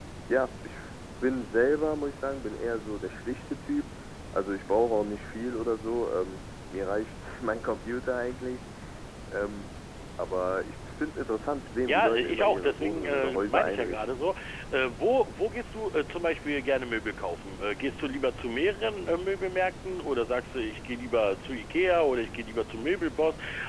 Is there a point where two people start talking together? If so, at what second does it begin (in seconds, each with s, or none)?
11.9 s